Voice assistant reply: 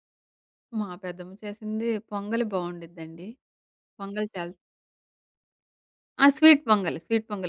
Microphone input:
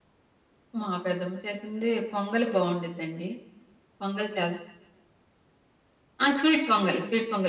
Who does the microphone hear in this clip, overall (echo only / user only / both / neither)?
echo only